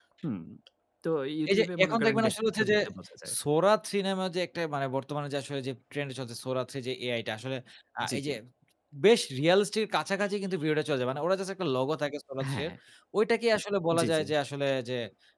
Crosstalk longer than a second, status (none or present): present